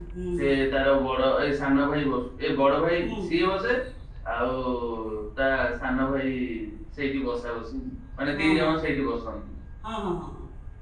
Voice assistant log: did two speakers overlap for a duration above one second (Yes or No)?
No